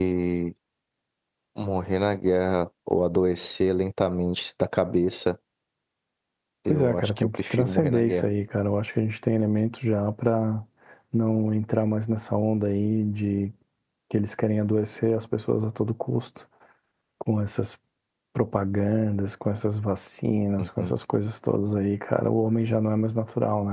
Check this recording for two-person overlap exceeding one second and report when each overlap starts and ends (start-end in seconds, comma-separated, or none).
6.7-8.3